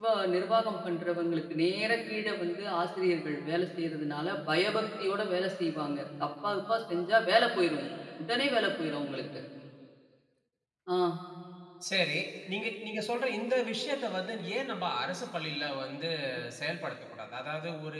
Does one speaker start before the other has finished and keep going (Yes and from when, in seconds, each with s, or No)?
No